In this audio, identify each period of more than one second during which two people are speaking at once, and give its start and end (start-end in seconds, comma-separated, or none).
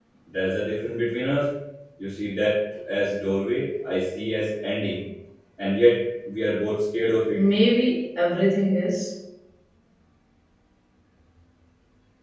none